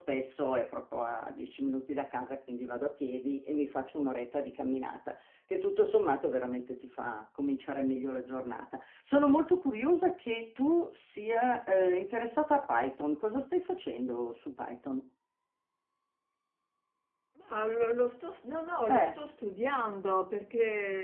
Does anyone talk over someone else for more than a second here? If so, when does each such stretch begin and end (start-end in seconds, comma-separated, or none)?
none